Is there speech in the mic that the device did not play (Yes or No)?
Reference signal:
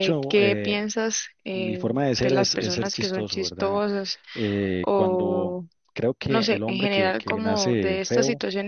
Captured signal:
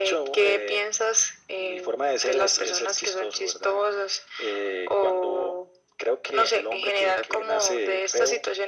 No